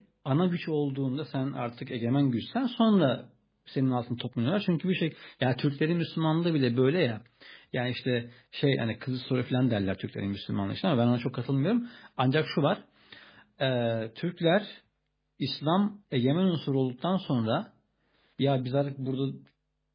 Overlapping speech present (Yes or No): No